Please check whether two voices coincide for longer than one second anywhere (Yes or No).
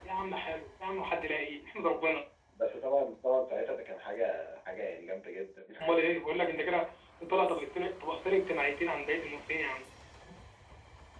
No